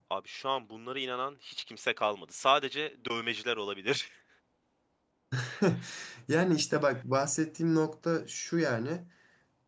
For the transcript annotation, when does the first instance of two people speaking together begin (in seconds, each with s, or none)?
none